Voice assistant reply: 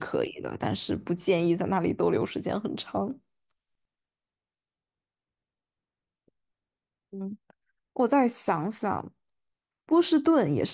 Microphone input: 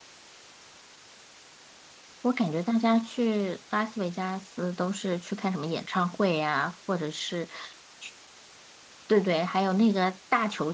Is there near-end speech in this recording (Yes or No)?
Yes